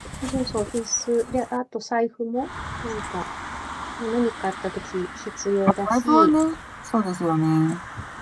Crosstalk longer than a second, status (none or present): none